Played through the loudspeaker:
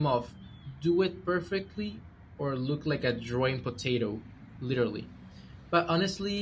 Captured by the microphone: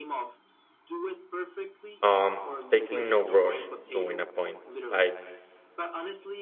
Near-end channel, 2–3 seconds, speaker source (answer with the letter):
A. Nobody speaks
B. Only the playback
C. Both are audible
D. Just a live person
C